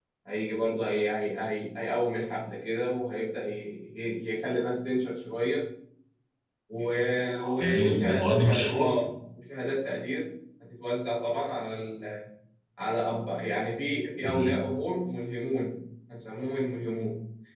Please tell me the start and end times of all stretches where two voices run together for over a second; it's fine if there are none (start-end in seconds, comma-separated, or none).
7.6-8.9